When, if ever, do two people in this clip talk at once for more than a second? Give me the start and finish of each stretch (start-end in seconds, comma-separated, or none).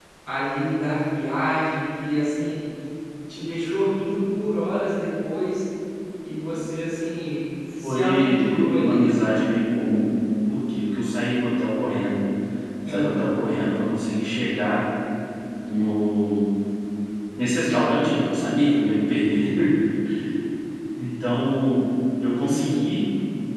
7.8-9.1